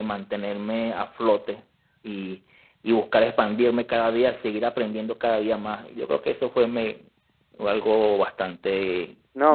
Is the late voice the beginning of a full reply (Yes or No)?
Yes